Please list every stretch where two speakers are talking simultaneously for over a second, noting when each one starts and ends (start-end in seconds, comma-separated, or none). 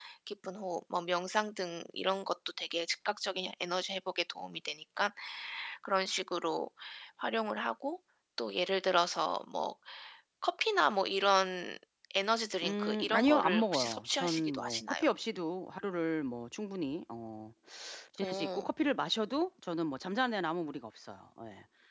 12.6-15.0